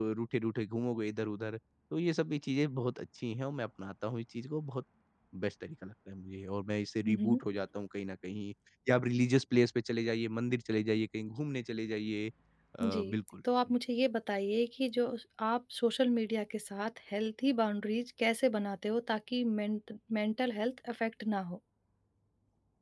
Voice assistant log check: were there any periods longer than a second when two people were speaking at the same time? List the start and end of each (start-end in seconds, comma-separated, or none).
none